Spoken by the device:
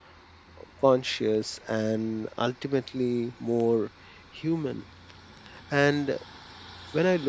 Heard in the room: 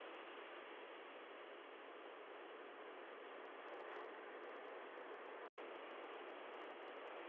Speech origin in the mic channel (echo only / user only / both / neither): neither